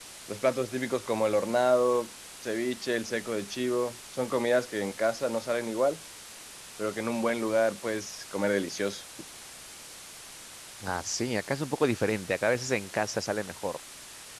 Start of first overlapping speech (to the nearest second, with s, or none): none